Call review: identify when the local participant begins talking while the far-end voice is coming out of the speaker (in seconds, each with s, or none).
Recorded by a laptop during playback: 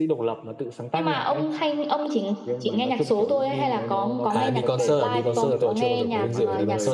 4.3 s